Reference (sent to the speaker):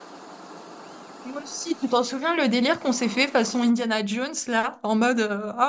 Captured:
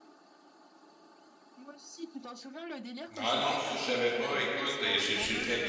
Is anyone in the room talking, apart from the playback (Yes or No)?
Yes